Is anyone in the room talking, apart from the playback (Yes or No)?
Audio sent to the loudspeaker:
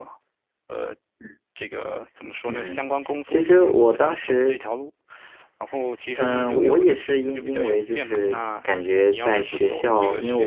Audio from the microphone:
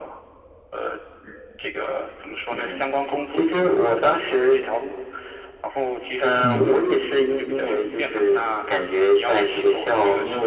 Yes